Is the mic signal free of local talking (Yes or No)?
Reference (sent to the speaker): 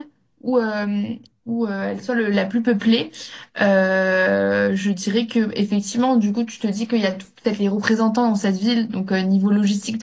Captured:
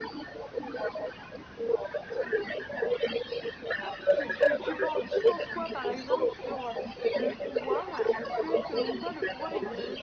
No